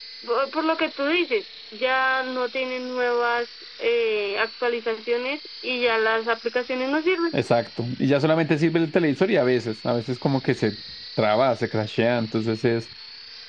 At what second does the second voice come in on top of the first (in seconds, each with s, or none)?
none